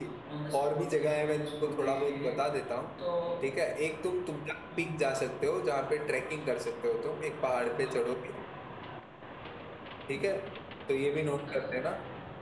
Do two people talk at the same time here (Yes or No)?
Yes